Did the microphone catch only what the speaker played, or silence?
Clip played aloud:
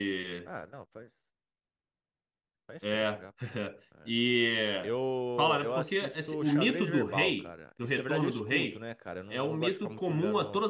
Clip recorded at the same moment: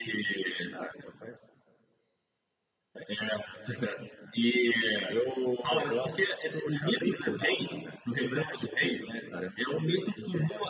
Yes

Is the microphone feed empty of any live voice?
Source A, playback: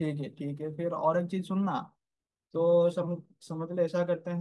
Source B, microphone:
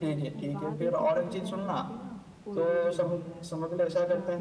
No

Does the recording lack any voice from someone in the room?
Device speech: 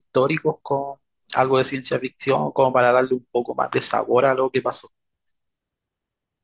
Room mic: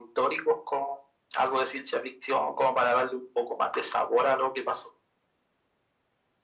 Yes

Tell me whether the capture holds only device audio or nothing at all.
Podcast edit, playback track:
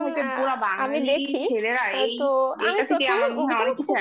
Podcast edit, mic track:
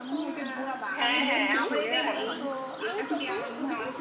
No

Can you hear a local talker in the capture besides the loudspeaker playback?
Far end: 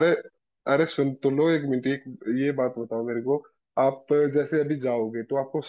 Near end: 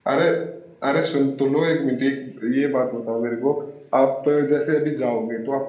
No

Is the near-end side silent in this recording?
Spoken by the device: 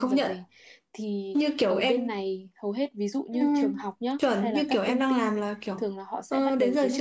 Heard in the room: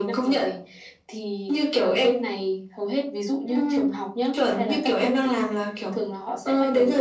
Yes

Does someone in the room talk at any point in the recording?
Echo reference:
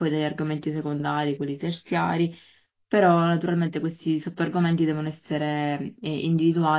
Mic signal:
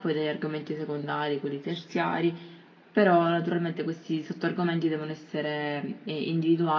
No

